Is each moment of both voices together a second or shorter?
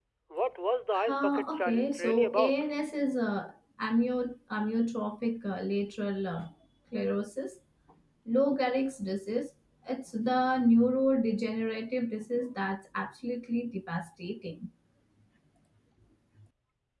No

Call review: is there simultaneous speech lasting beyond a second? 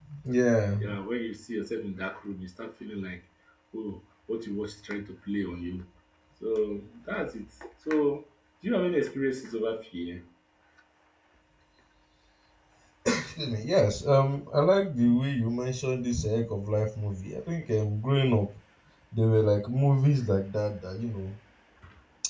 No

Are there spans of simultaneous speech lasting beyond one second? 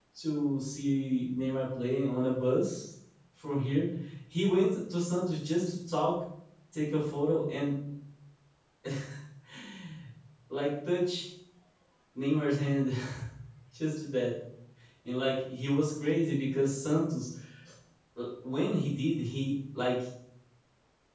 No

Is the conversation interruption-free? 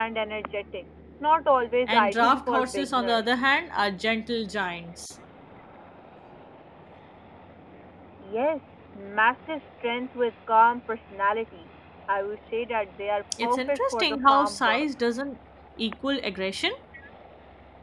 No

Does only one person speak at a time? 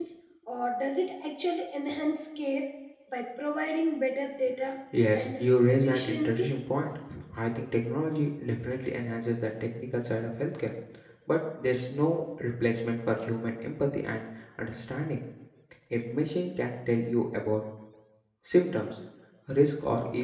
No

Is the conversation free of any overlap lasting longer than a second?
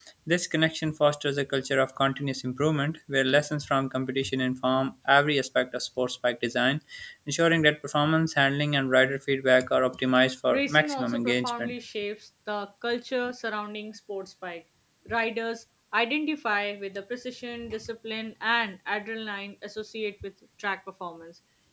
No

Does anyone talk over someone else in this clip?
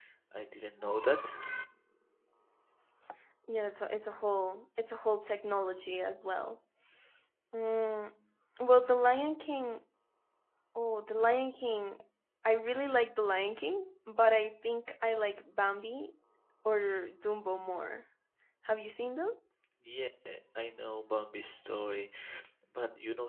No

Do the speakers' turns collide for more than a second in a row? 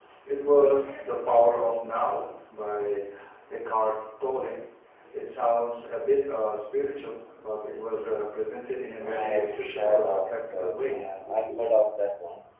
Yes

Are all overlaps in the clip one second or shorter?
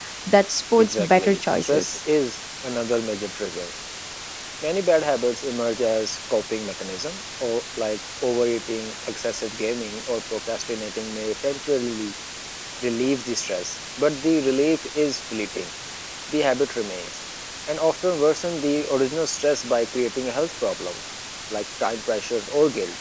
No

